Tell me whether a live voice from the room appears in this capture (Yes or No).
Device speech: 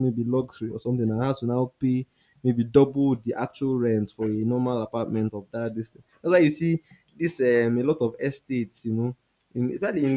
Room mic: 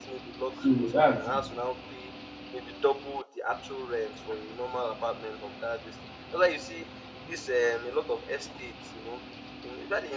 Yes